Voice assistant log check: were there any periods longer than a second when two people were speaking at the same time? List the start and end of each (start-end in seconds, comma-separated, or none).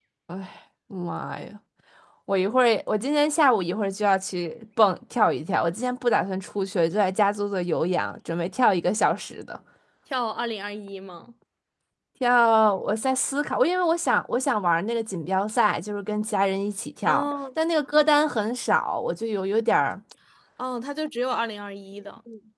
none